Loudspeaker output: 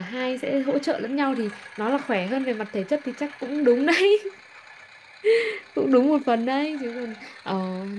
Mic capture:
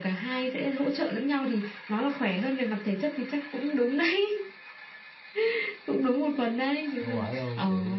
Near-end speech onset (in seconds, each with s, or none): 7.0 s